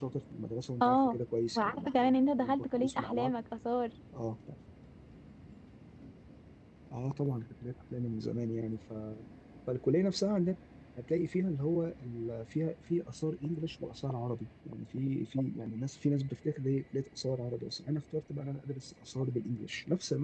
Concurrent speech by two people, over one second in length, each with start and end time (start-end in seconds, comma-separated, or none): 1.6-3.3